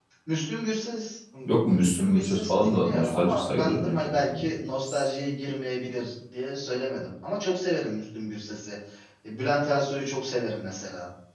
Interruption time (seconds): 1.6 s

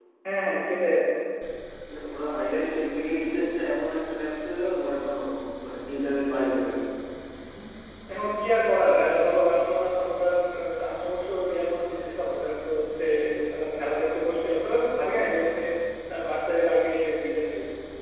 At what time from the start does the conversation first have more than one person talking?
none

